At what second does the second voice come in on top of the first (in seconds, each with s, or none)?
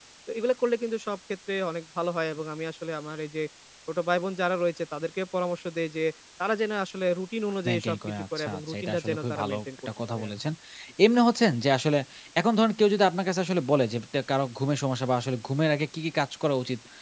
7.7 s